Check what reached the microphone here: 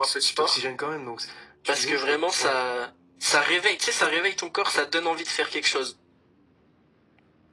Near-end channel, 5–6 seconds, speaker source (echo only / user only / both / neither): echo only